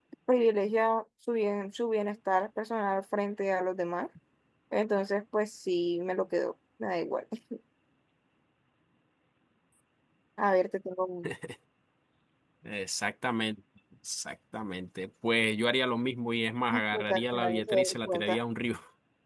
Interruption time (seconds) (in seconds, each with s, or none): 16.7 s